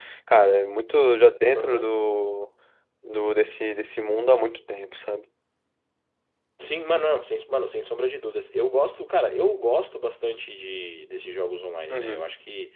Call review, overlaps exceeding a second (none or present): none